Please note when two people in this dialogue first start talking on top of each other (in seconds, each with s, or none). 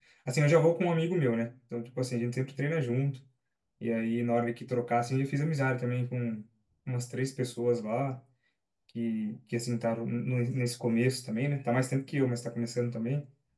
none